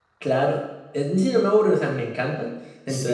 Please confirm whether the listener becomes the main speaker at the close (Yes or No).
No